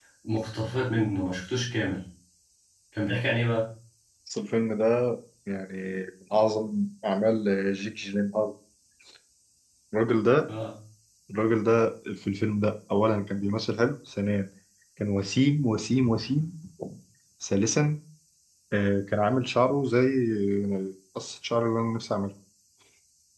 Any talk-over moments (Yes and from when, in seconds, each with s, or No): No